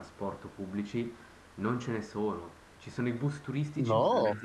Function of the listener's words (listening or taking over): listening